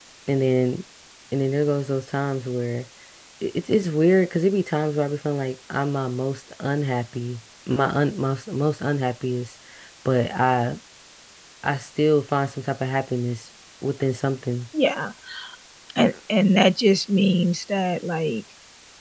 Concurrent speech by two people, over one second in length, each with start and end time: none

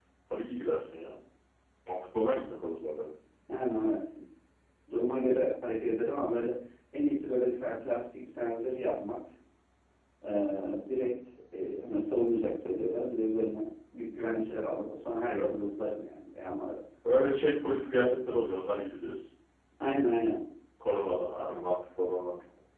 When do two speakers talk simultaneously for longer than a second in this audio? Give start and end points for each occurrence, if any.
none

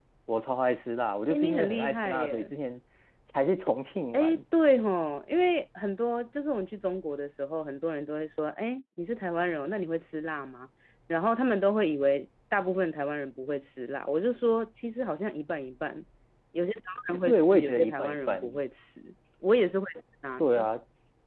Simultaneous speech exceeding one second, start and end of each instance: 1.3-2.5, 17.2-18.6

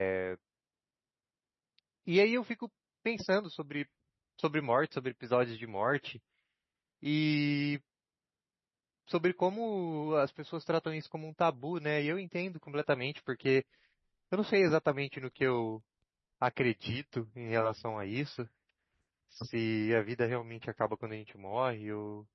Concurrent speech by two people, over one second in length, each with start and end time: none

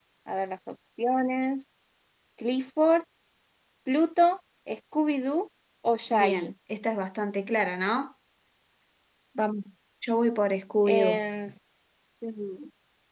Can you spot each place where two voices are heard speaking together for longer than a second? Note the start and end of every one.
none

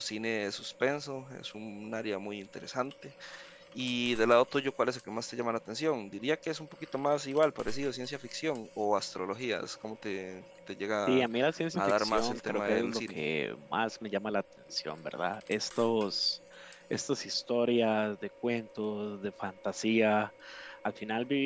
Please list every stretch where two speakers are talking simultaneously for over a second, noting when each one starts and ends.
11.8-13.2

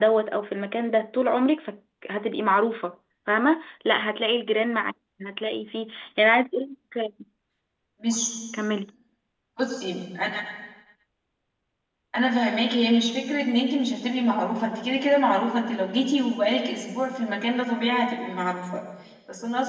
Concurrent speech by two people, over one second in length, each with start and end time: none

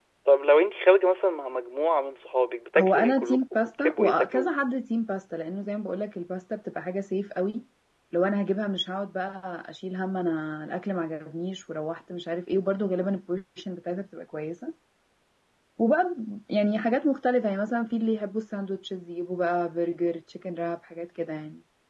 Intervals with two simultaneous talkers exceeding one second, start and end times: 2.8-4.5

